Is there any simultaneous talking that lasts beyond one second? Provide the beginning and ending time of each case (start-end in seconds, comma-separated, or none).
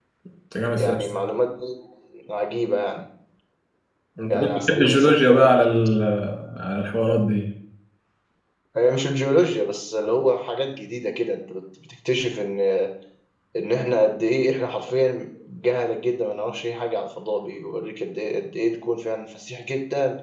4.3-5.5